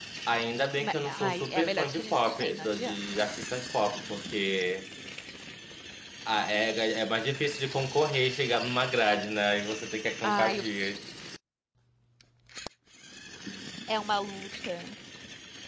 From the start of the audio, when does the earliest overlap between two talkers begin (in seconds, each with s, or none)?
0.8 s